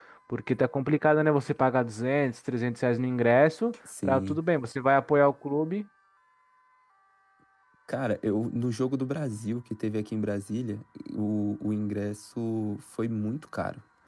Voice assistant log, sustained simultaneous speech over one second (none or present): none